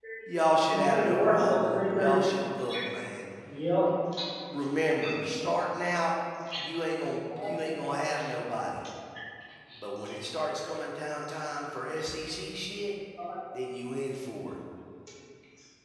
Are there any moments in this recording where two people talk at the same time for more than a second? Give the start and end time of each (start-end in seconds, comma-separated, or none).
0.7-2.1